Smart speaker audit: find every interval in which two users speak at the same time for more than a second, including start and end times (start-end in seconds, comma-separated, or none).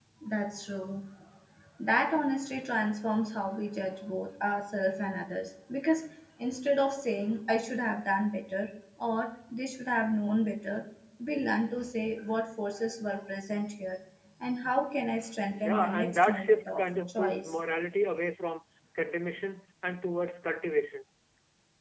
15.5-17.5